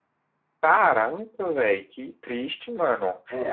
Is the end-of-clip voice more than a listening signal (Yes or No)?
Yes